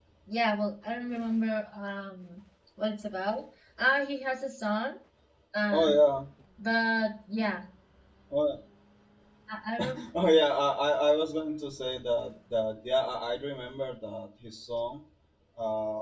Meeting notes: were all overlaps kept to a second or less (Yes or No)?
Yes